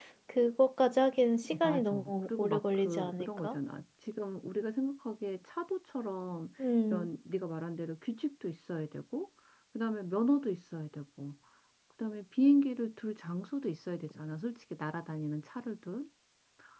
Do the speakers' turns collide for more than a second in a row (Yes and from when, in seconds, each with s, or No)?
Yes, from 1.5 s